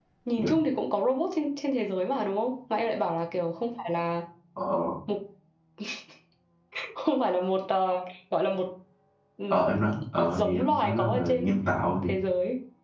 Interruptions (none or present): present